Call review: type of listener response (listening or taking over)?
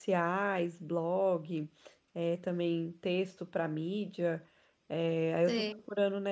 listening